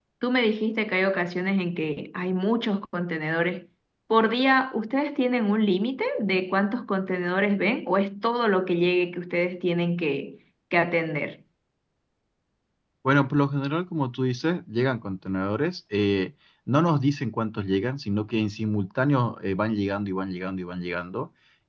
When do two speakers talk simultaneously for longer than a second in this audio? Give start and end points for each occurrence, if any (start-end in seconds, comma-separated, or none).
none